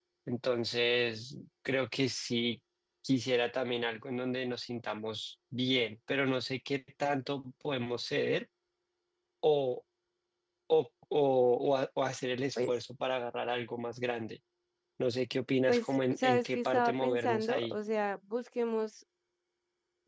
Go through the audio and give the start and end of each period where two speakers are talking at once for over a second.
15.7-17.8

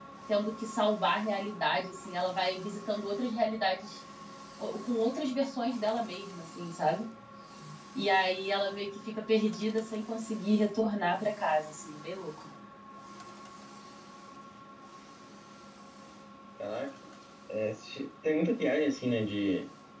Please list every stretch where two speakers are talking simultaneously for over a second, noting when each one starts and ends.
none

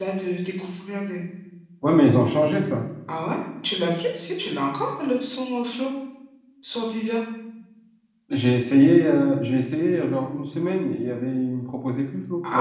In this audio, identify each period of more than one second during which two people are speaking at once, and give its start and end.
none

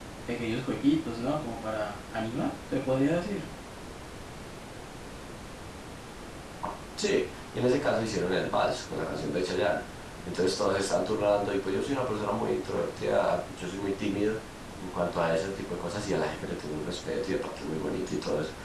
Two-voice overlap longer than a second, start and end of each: none

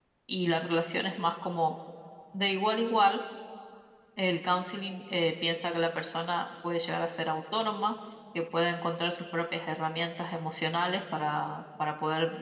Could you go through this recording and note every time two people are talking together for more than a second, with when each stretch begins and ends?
none

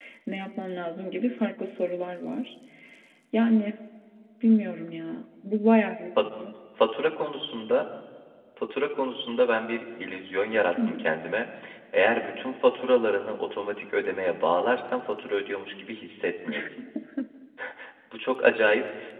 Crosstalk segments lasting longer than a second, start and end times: none

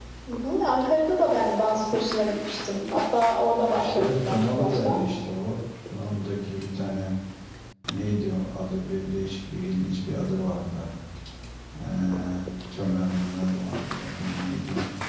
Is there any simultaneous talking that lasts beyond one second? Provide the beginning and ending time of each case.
3.7-5.0

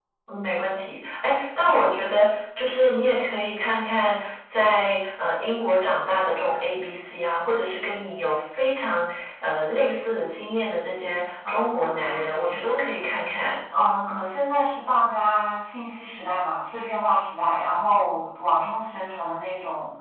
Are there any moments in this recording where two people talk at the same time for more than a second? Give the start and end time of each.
11.5-12.8

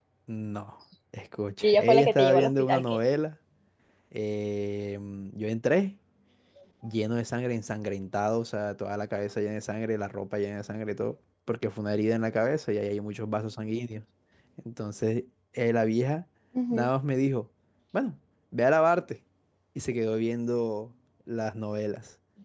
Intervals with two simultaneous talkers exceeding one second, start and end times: 1.6-3.0

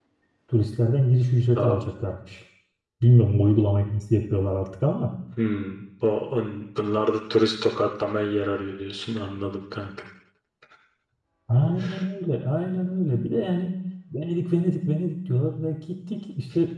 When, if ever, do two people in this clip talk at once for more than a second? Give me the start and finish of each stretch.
none

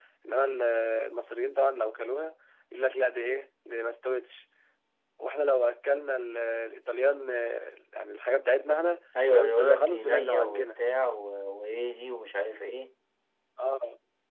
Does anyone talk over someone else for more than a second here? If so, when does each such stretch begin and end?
9.3-10.7

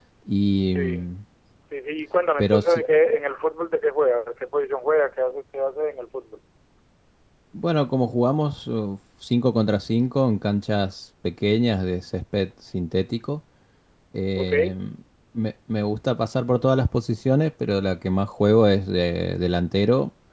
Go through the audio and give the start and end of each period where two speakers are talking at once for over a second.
none

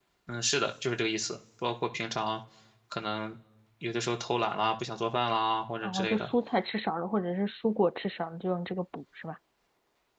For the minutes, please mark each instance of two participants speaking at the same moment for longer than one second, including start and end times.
none

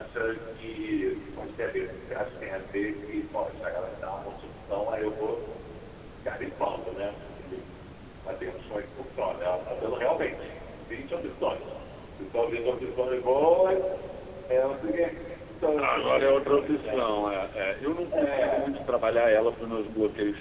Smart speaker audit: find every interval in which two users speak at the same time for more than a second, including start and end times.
15.8-17.1

